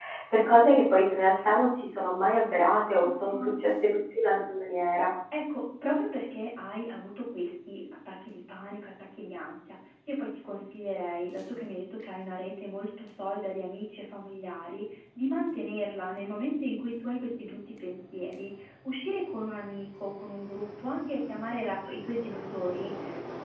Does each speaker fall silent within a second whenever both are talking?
Yes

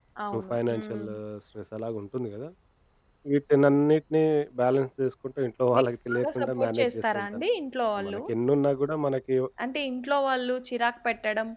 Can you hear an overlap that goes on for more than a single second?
Yes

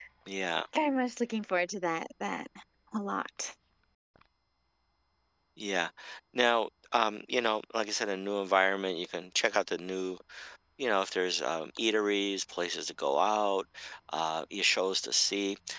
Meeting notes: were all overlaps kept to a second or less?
Yes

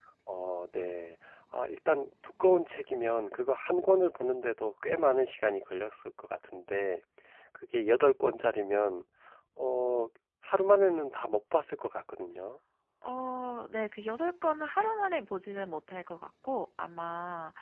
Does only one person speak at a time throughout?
Yes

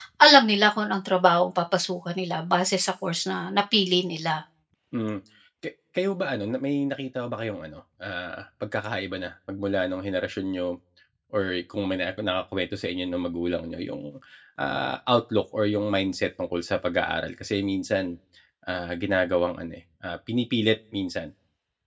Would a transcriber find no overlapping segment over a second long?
Yes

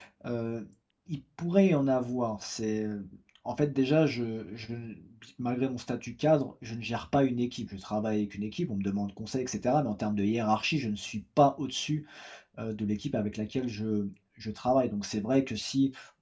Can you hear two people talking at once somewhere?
No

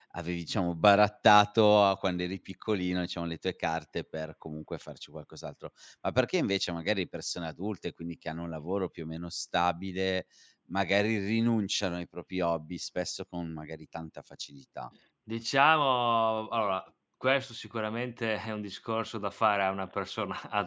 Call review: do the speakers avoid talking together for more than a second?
Yes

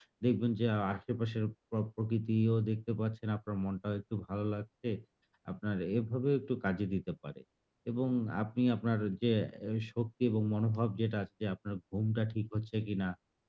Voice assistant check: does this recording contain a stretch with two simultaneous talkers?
No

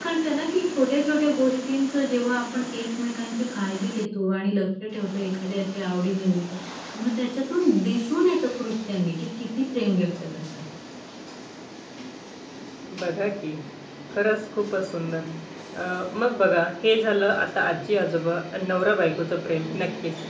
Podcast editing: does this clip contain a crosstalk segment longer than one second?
No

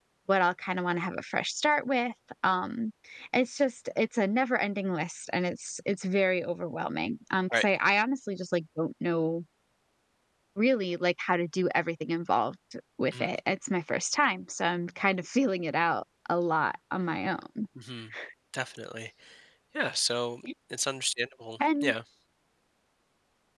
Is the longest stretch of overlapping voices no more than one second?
Yes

